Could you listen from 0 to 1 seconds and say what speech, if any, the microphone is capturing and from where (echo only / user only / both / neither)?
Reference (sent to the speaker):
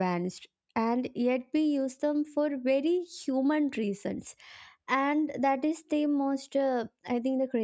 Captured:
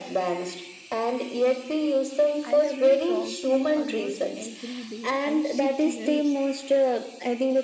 echo only